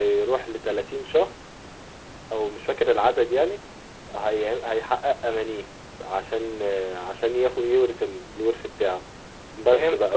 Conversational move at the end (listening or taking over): listening